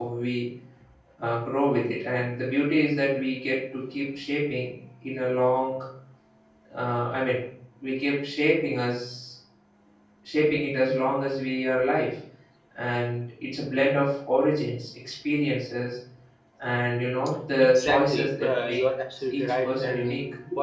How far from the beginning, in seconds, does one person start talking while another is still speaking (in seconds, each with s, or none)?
17.6 s